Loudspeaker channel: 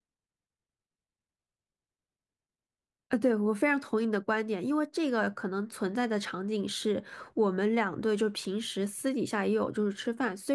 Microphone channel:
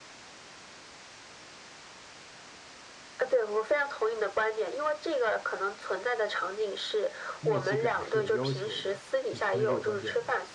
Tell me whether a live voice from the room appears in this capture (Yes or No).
Yes